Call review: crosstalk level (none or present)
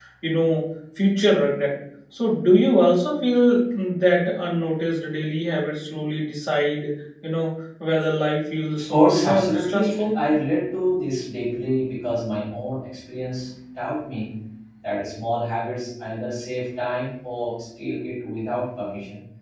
present